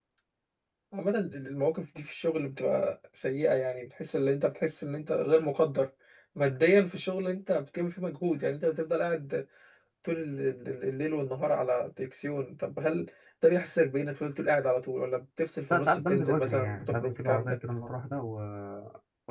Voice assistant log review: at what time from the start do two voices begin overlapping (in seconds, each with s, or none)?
15.7 s